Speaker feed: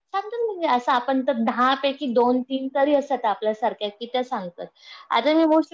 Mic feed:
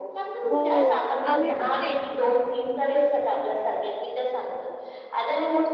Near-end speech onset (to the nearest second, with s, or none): 1 s